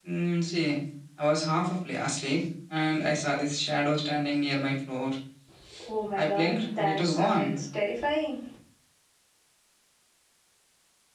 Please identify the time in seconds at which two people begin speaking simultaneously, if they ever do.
6 s

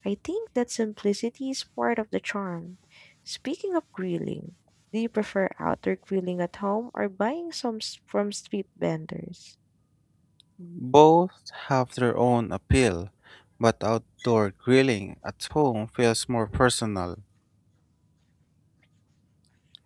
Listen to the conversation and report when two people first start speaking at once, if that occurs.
none

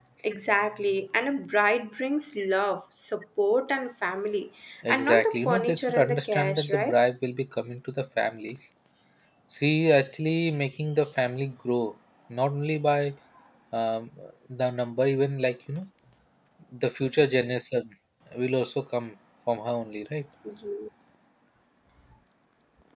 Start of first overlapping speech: 5 s

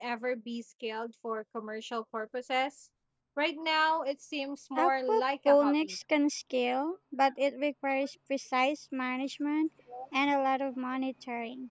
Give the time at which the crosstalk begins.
5 s

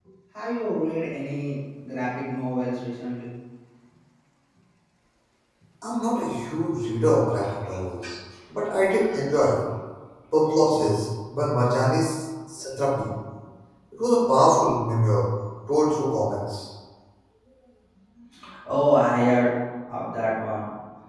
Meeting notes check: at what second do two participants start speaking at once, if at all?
none

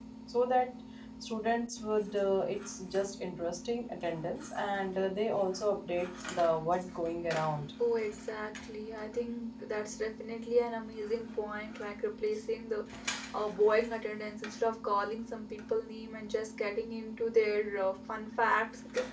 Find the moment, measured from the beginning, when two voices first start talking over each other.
none

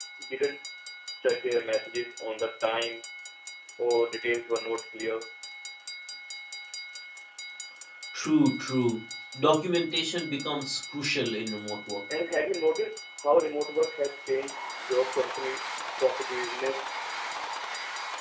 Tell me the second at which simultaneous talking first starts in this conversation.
none

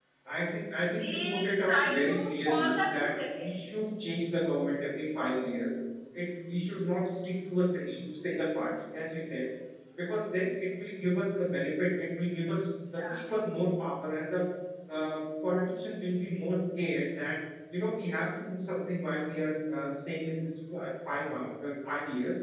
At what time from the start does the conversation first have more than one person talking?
1 s

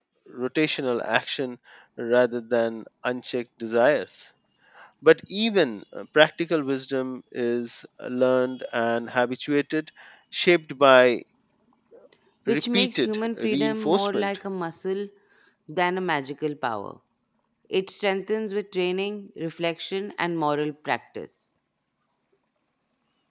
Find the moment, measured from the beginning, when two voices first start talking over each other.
12 s

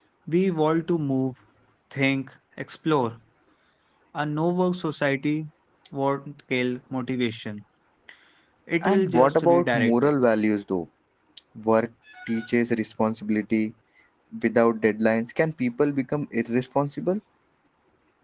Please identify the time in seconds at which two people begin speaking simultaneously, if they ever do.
9 s

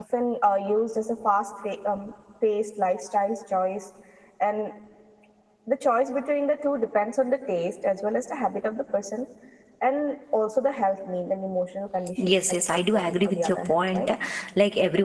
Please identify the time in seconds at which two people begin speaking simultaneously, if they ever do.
12 s

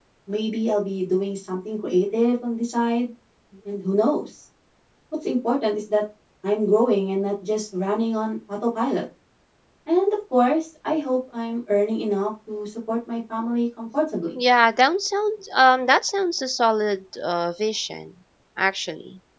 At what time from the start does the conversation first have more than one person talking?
none

